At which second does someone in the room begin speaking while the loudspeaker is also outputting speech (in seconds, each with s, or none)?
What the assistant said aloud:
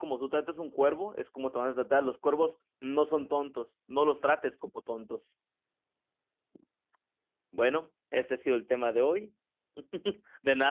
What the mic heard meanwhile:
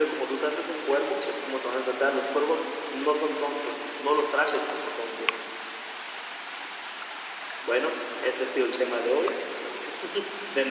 none